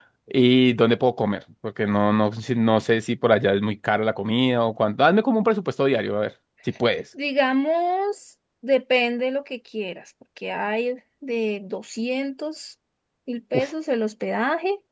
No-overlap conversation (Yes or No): Yes